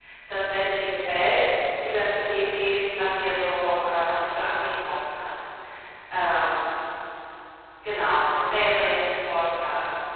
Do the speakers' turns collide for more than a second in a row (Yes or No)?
No